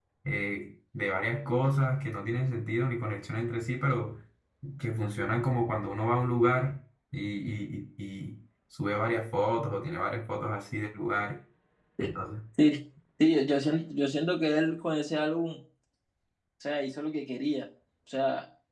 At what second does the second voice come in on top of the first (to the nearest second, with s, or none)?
none